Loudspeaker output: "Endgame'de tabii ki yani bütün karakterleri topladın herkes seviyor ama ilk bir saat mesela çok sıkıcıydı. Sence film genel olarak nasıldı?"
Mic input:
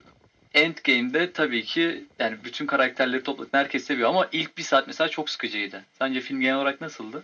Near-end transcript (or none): none